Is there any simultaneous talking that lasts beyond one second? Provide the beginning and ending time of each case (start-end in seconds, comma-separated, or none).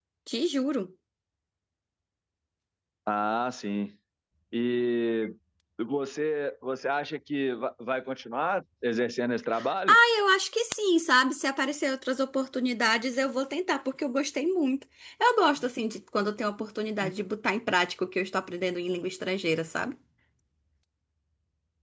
none